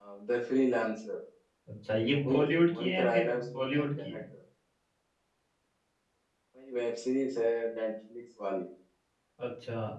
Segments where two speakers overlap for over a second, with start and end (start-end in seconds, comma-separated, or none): 2.1-4.2